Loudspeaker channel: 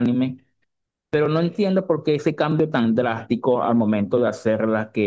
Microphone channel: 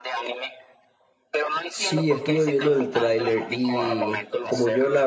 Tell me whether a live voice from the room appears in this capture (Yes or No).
Yes